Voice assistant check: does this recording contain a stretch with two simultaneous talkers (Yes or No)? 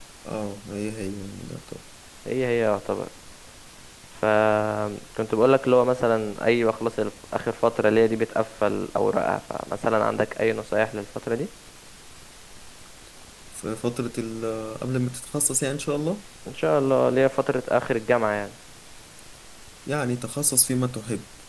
No